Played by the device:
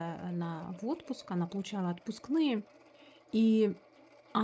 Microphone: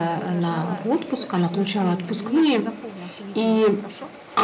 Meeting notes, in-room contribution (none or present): present